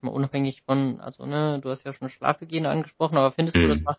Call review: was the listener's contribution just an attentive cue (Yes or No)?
Yes